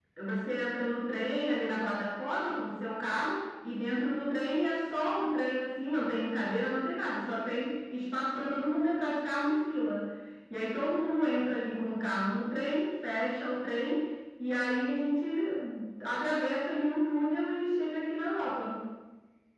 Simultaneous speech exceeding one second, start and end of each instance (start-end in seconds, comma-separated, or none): none